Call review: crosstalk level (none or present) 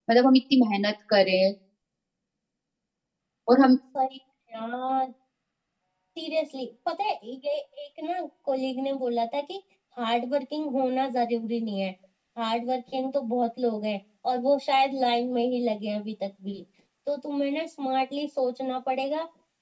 none